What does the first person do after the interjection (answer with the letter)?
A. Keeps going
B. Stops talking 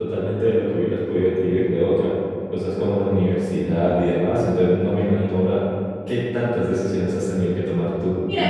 B